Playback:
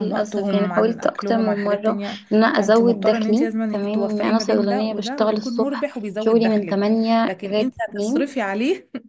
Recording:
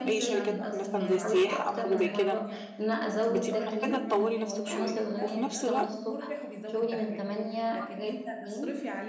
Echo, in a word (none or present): present